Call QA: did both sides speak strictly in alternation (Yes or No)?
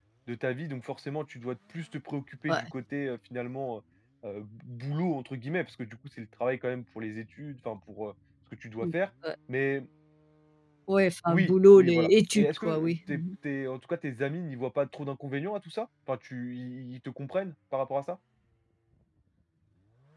No